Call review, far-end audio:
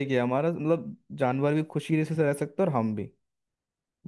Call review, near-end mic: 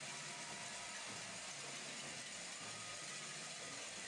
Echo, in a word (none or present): none